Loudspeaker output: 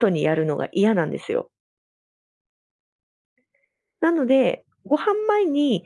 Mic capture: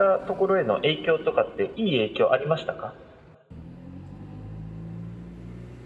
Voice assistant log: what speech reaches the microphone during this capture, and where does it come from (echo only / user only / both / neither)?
user only